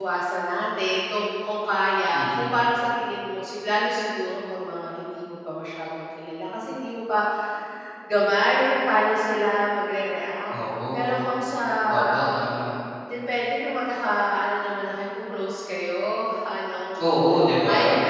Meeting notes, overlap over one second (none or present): none